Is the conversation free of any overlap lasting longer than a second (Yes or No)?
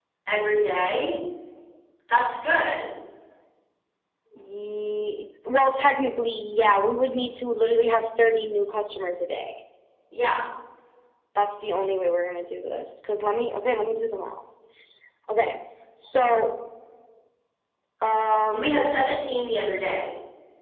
Yes